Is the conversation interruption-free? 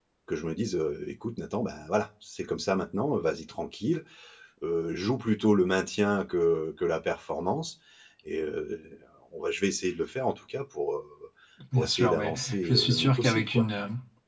No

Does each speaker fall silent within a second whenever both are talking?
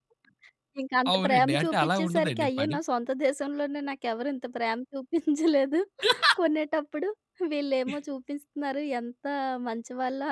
No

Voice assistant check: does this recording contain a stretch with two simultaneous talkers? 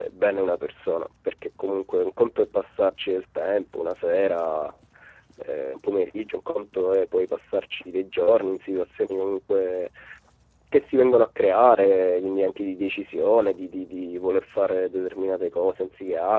No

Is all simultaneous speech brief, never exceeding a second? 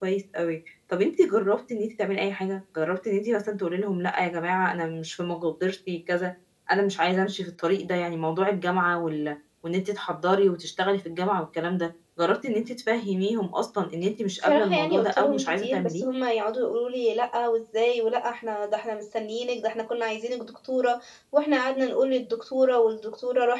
No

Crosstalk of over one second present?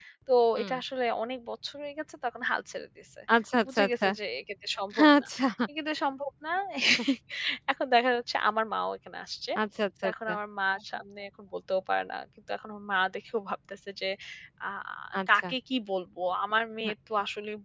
No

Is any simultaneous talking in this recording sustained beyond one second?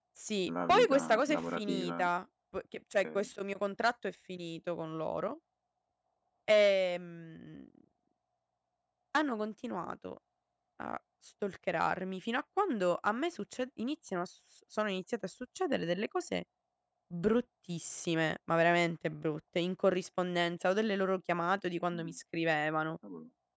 Yes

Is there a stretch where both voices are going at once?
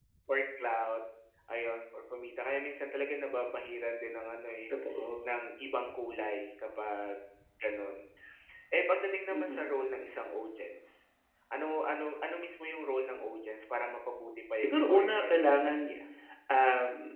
Yes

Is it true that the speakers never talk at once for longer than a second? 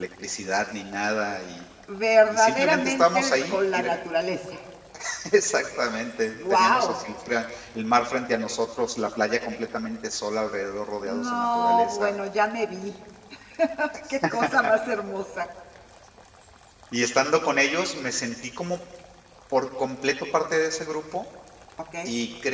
No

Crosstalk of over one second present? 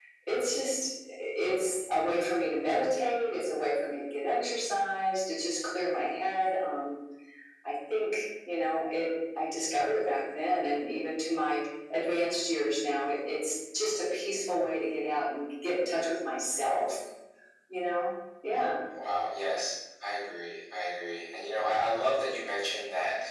No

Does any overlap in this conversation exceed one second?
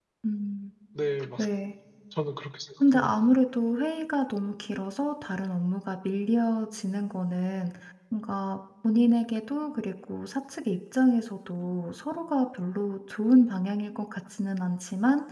No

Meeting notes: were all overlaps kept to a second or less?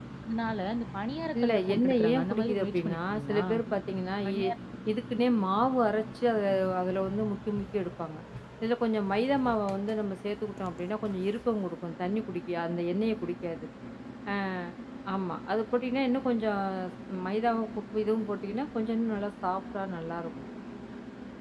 No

